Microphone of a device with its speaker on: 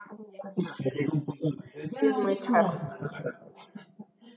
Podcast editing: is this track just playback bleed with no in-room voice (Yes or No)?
No